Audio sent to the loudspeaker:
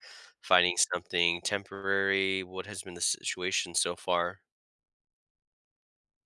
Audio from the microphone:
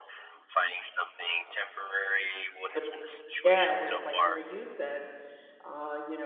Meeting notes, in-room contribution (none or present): present